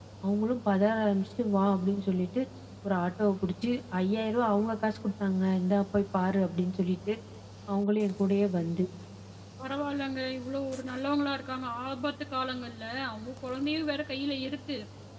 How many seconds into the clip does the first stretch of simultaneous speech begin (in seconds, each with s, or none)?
none